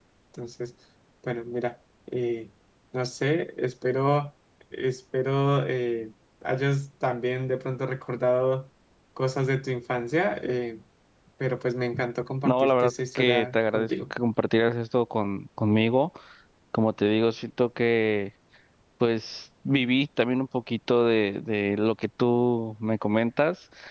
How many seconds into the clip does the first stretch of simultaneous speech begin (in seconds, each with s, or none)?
12.4 s